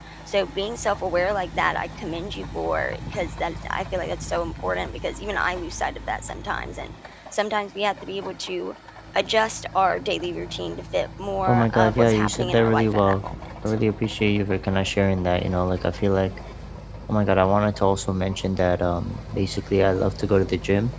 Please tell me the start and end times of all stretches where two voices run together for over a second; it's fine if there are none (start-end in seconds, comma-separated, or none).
11.4-13.2